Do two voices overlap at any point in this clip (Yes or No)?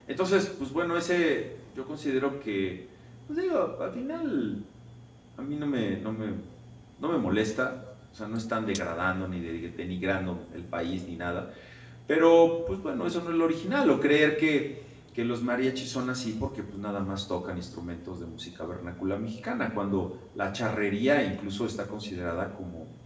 No